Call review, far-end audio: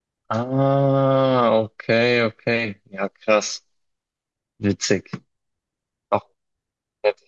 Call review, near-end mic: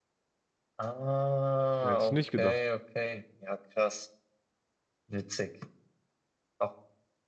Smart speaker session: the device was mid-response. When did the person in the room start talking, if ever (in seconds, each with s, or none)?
1.8 s